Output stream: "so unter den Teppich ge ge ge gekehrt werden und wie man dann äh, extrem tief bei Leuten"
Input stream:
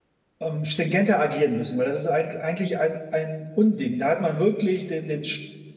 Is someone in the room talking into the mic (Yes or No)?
Yes